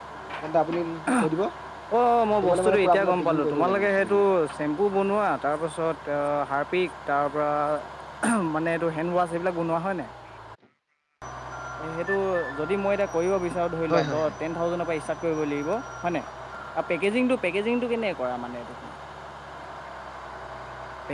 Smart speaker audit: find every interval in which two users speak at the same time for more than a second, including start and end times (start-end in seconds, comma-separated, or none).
2.4-4.2